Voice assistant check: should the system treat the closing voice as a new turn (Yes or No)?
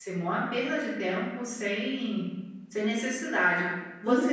No